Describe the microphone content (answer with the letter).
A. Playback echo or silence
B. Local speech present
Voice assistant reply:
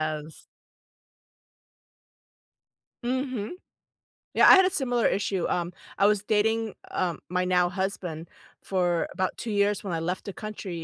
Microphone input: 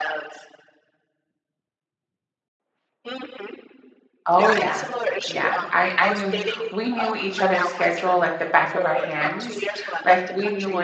B